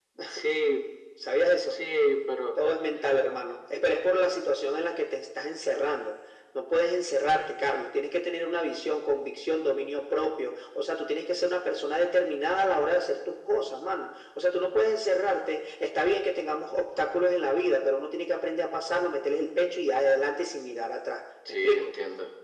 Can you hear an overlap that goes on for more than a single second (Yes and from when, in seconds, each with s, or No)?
No